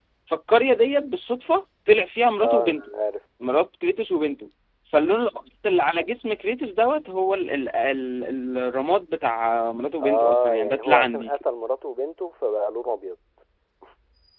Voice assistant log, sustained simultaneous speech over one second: present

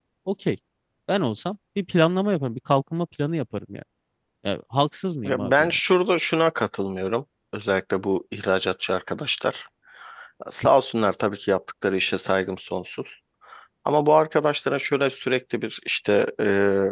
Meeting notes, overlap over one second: none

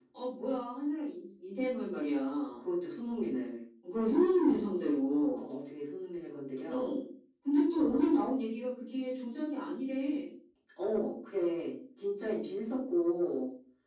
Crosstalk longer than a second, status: none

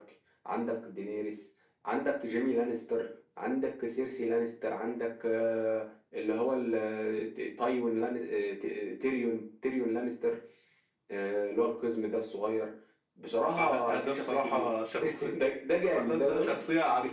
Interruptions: present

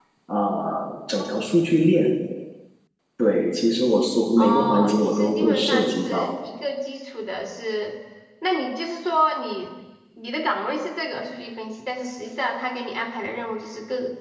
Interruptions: present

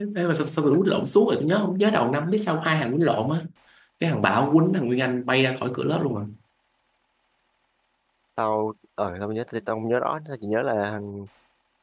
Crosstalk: none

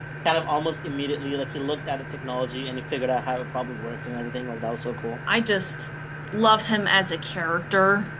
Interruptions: none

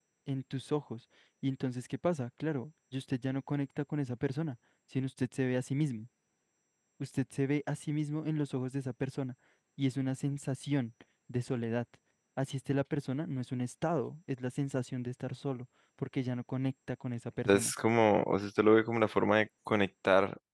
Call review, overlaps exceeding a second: none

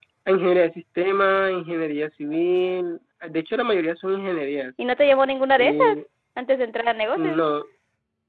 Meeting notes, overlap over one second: none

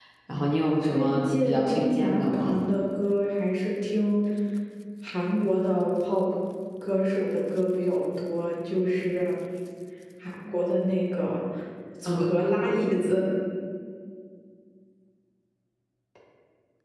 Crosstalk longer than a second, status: present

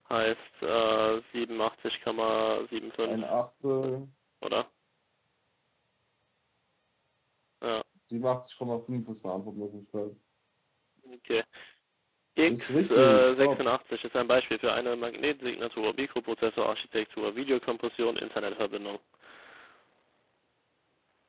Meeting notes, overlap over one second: present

